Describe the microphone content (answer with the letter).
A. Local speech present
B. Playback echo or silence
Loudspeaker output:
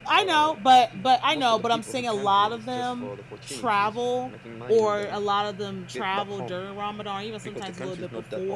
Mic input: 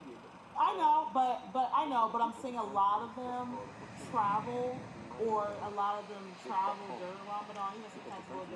B